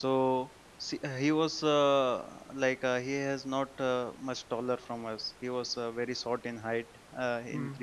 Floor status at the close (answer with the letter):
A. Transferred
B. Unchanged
B